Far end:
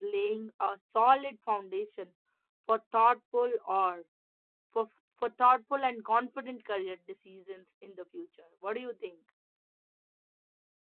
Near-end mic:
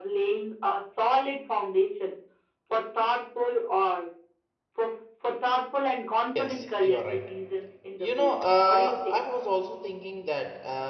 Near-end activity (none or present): present